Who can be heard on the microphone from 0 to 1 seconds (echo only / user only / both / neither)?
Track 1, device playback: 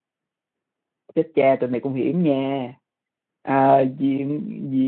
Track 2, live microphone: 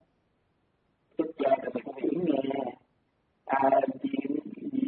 neither